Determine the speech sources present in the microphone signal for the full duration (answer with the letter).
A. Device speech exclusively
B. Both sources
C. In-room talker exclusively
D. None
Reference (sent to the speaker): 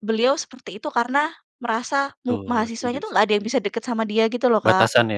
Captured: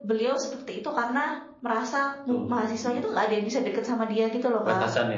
A